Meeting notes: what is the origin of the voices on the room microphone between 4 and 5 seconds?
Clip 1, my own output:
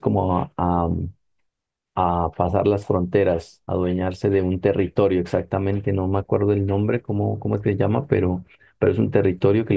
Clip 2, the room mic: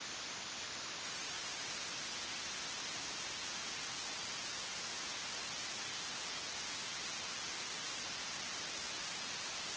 neither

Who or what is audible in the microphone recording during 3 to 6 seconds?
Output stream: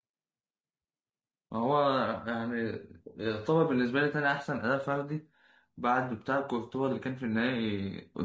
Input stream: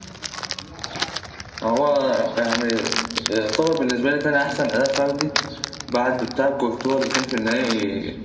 echo only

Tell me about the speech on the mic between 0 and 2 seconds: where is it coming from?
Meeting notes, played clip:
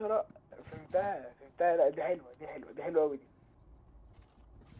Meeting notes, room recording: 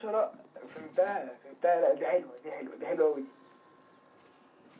echo only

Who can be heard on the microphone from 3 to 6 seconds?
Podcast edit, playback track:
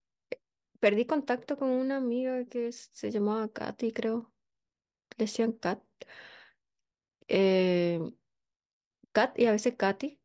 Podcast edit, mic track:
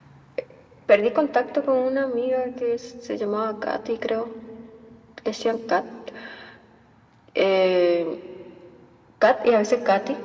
echo only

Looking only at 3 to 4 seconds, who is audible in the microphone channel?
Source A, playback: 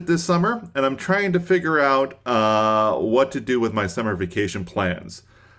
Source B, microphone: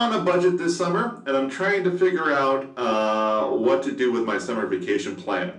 echo only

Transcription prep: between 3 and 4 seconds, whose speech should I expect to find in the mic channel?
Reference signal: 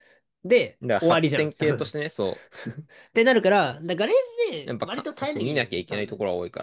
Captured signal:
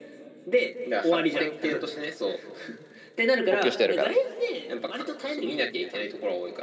both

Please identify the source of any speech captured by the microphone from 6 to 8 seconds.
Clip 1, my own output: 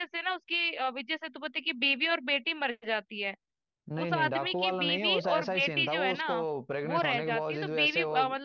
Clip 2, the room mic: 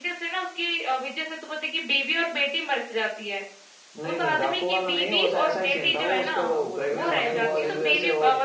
both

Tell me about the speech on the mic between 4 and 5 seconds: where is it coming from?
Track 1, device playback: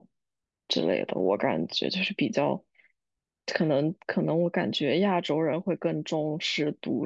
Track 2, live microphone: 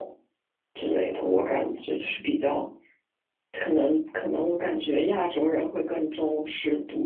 echo only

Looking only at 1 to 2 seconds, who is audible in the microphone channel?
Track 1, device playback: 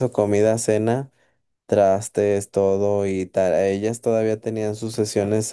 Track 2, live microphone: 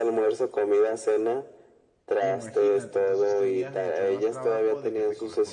echo only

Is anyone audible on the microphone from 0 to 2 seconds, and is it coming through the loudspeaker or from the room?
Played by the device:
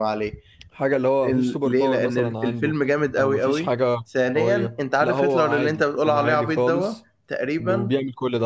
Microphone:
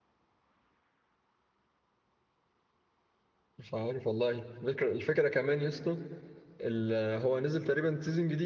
neither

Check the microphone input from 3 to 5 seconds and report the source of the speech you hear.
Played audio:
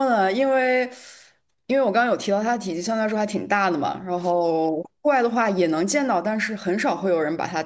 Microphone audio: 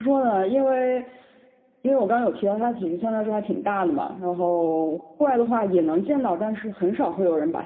echo only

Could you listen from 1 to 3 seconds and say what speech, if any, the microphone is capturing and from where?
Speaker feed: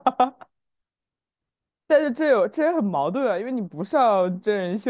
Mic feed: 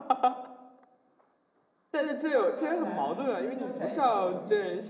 both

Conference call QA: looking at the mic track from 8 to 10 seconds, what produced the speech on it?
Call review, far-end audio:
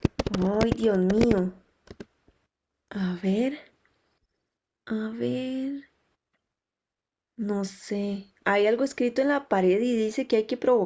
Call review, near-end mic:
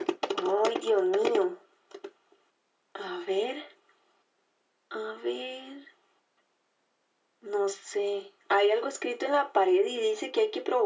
echo only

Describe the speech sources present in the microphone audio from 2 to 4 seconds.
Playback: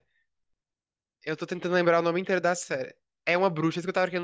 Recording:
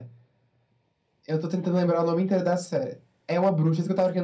echo only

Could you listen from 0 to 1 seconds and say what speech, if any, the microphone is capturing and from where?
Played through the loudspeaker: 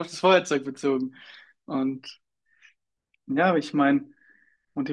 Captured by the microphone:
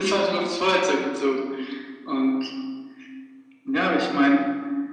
echo only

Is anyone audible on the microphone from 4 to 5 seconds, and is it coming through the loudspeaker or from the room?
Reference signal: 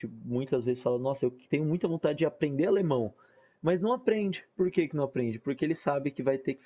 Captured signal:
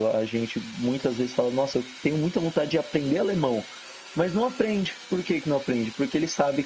echo only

